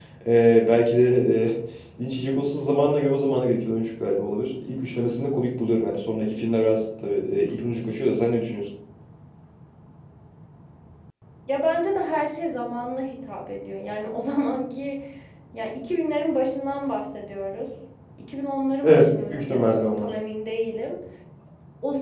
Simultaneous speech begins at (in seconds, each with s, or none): 18.8 s